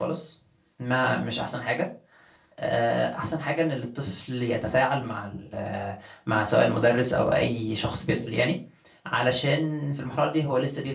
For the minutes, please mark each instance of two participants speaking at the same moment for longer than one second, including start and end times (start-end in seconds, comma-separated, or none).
none